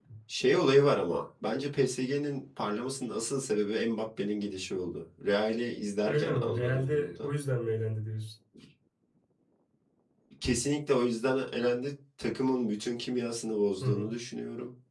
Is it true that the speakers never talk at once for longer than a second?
No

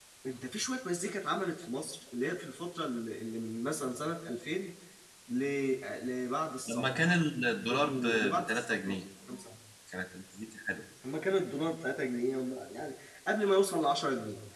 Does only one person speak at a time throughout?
No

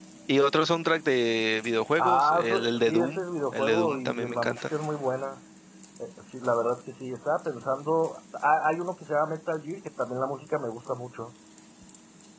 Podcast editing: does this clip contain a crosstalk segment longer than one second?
Yes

